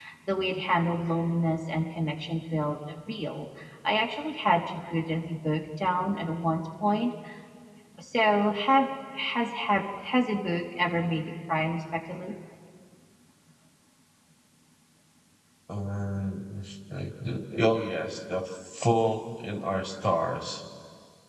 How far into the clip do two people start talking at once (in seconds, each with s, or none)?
none